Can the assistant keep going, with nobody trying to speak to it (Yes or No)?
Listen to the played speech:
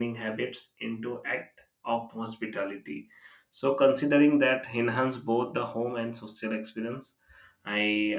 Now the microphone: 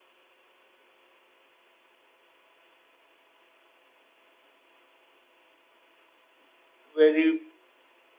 No